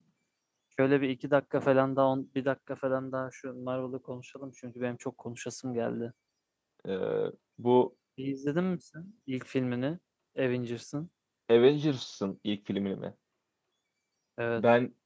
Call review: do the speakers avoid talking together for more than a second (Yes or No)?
Yes